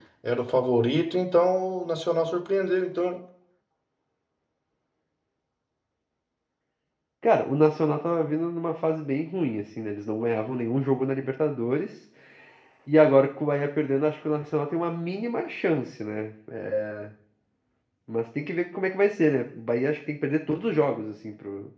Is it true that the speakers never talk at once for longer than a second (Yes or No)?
Yes